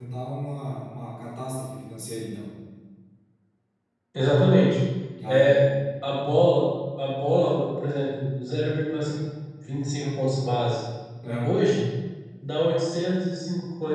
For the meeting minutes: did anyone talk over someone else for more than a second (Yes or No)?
No